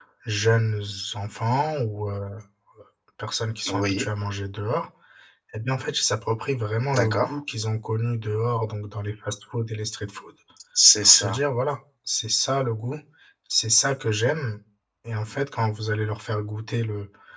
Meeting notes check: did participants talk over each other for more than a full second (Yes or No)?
No